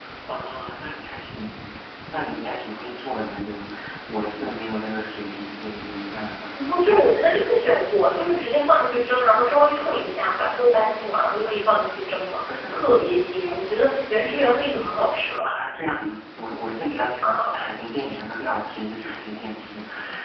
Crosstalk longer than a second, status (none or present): none